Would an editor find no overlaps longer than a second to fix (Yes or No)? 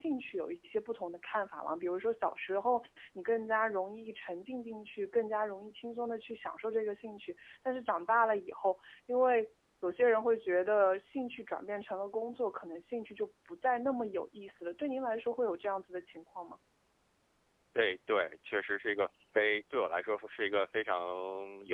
Yes